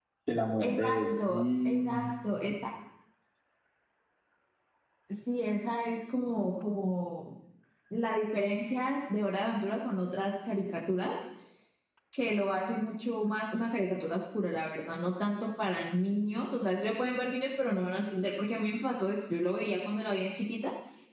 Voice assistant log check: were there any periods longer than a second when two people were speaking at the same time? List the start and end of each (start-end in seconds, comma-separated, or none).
0.6-2.0